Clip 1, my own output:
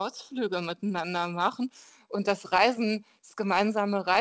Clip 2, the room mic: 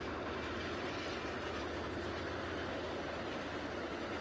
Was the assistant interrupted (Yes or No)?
No